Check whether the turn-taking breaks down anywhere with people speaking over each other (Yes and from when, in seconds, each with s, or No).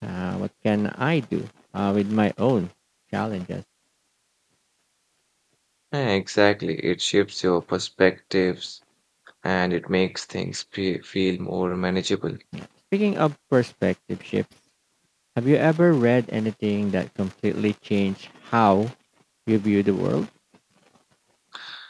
No